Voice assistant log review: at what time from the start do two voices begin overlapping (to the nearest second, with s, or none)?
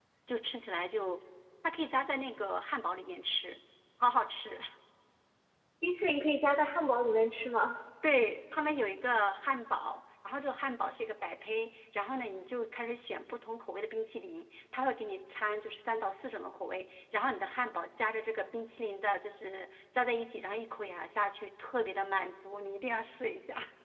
none